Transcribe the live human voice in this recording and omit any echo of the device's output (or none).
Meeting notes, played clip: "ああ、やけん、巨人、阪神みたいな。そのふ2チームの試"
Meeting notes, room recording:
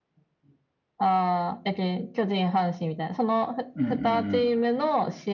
うんうん